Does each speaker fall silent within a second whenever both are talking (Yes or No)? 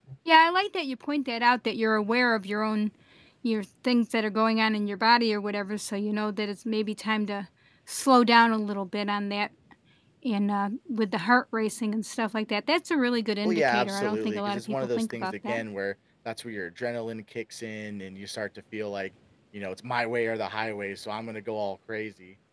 No